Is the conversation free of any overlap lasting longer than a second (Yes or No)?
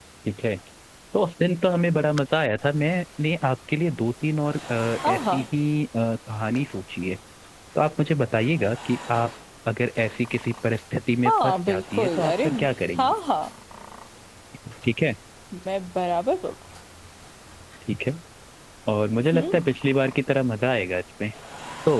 No